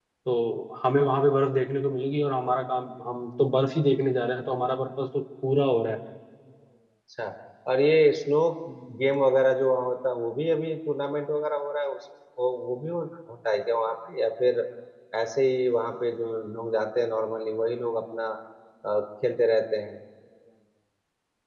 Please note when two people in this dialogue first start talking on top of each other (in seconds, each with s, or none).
none